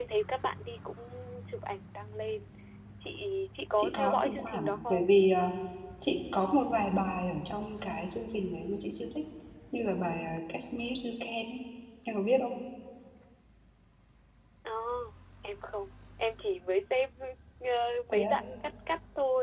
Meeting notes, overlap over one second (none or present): present